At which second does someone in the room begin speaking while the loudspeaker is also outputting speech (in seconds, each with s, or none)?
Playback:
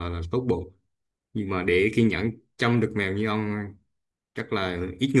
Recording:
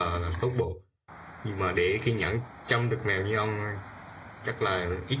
none